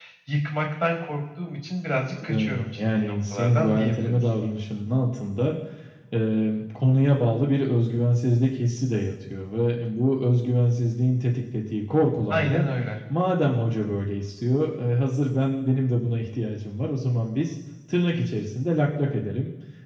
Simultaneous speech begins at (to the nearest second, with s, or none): 2 s